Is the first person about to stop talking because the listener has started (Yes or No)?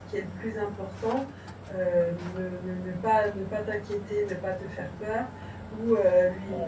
No